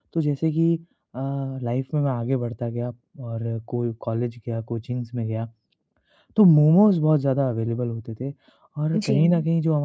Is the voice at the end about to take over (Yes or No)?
No